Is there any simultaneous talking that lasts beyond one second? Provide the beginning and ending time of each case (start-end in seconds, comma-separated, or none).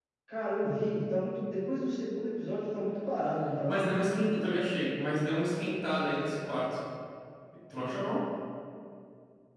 none